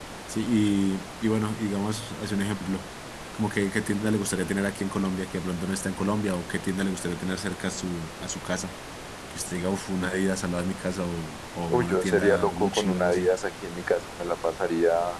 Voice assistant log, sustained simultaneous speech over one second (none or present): present